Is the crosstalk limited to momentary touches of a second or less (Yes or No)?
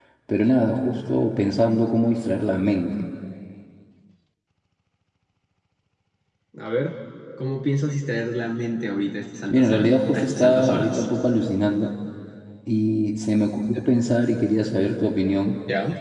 No